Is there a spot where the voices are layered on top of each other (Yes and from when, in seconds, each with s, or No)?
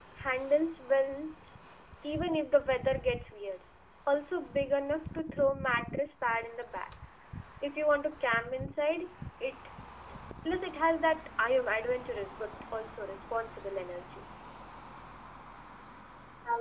No